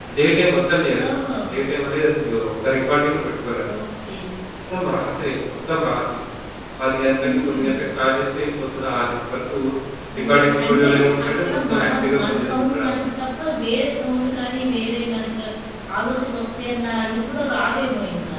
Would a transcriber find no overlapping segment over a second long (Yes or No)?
No